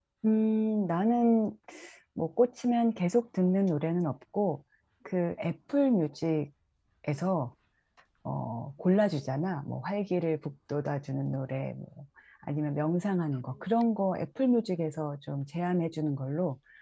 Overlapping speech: No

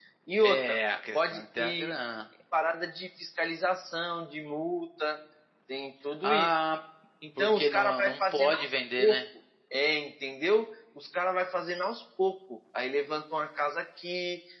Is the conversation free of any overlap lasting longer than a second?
No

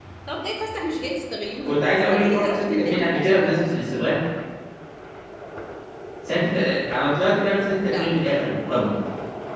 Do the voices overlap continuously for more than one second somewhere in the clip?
Yes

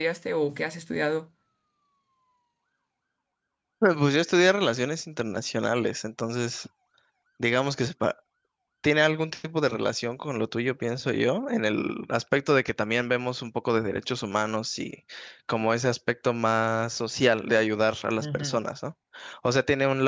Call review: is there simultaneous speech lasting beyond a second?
No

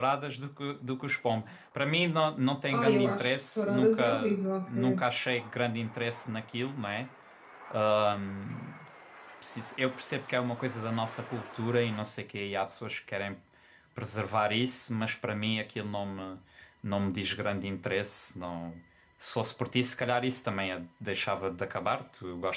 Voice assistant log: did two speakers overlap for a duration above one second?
Yes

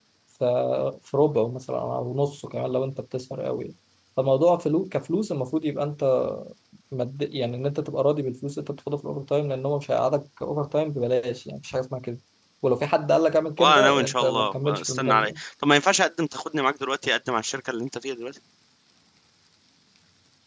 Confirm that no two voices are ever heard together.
No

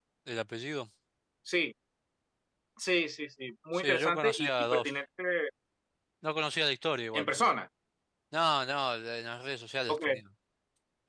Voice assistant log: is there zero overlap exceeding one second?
No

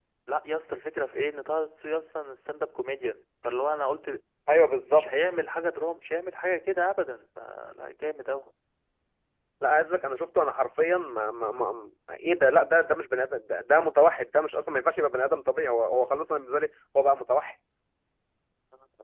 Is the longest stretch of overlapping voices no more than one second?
Yes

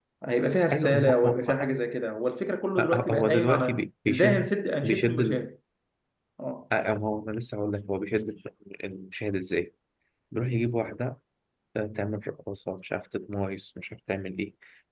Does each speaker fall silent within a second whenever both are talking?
No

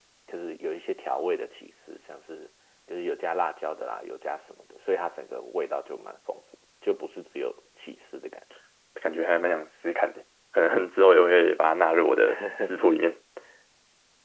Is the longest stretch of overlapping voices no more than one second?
Yes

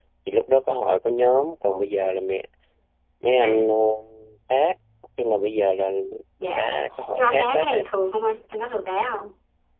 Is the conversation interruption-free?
No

